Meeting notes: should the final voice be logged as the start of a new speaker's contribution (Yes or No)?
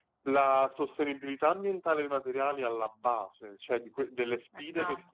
No